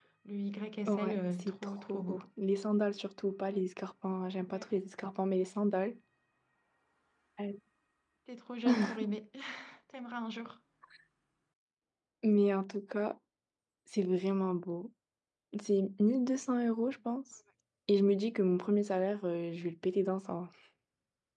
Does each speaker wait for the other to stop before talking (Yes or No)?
No